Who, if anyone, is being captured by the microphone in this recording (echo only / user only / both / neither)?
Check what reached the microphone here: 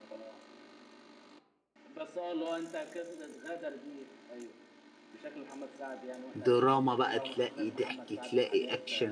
both